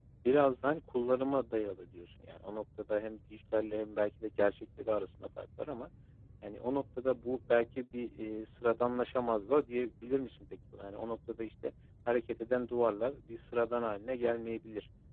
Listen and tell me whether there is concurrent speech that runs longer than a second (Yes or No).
No